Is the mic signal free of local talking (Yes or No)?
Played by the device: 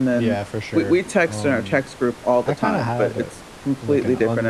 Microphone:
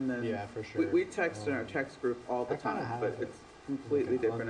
Yes